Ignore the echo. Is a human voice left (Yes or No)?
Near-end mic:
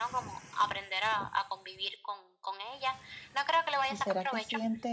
Yes